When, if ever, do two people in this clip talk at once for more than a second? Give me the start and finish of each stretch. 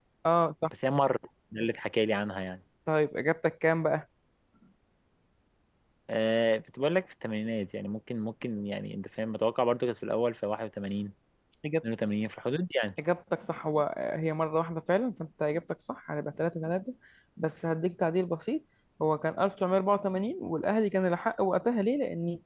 none

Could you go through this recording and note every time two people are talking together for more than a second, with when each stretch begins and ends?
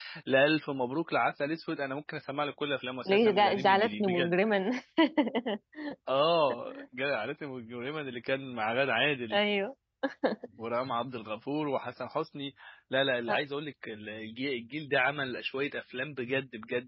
3.0-4.3

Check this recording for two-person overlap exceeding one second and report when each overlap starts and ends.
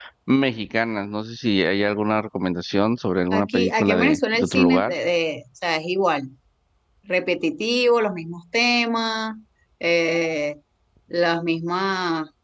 3.3-5.0

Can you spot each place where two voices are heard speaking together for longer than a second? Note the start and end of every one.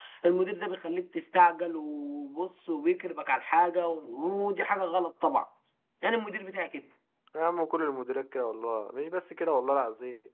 none

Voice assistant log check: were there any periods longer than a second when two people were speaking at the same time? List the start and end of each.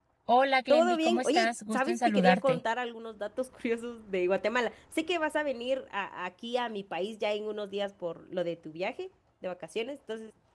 0.7-2.6

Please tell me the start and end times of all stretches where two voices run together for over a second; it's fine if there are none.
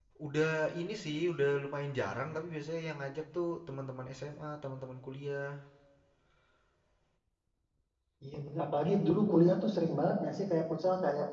none

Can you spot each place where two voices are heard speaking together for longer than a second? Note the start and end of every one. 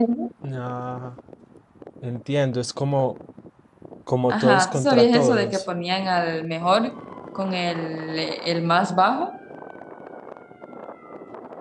4.3-5.6

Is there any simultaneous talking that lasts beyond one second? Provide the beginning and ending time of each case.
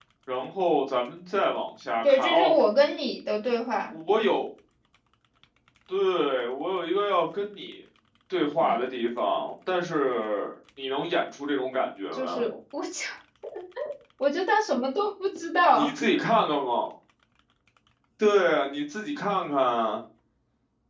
none

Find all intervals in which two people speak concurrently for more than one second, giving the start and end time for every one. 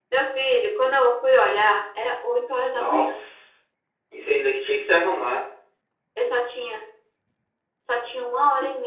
none

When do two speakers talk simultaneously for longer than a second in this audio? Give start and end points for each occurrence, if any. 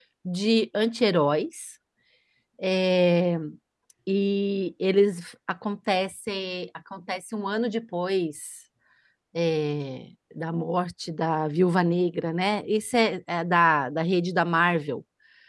none

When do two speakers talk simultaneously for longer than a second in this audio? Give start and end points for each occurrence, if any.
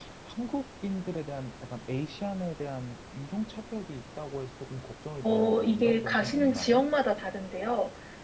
5.2-6.8

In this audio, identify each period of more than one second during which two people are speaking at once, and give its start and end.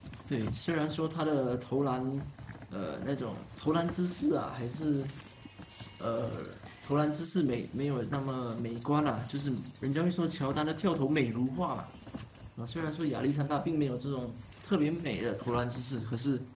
none

